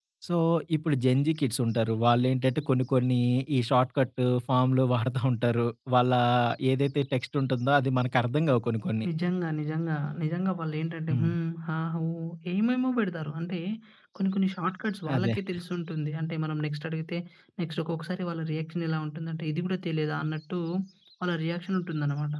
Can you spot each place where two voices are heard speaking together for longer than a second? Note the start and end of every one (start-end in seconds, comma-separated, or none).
none